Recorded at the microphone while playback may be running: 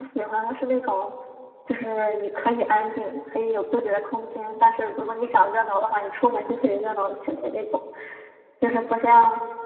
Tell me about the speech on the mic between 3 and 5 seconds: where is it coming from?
user only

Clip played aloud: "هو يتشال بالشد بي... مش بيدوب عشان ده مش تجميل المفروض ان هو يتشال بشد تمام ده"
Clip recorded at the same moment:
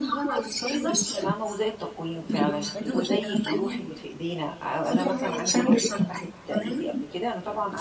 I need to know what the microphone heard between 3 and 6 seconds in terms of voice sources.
both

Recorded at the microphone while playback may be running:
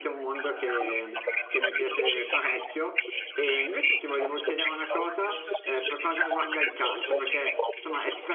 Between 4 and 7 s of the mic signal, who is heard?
both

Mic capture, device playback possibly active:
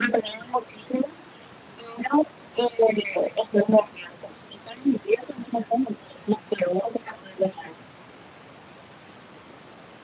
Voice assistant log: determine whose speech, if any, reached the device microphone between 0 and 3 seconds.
echo only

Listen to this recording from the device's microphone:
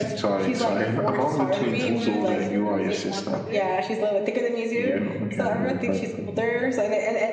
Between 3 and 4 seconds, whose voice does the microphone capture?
both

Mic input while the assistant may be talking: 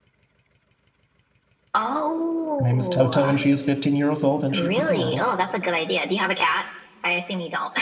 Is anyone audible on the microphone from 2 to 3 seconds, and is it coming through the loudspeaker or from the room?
both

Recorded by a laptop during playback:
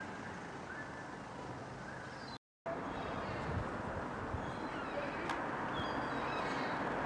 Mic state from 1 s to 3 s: neither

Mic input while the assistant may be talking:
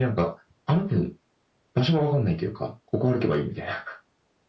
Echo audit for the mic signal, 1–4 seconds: echo only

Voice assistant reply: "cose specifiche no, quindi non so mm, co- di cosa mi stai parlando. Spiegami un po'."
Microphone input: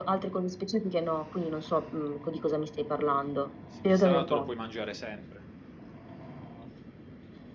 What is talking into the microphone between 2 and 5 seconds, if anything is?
both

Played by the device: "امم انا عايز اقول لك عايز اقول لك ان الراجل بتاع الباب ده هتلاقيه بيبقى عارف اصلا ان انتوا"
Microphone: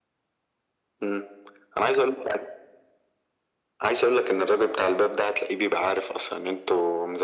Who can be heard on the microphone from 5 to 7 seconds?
echo only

